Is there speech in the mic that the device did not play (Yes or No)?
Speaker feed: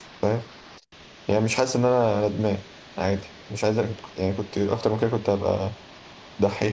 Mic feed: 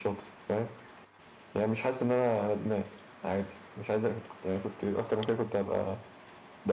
No